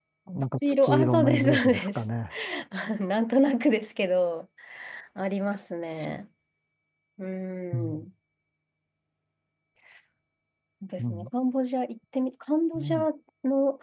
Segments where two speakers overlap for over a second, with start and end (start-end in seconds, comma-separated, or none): 0.7-2.1